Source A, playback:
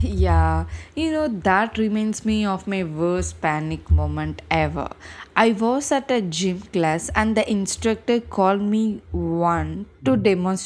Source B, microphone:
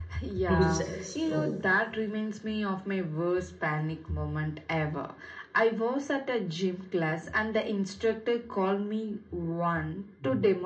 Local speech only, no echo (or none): two sex toe.